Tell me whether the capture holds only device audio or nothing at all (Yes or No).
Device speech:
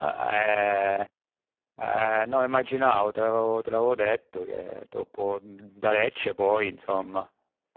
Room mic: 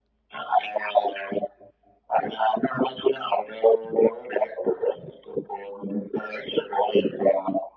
Yes